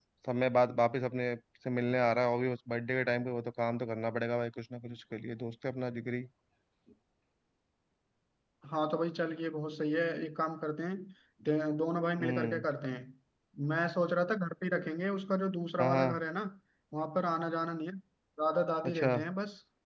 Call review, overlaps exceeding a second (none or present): none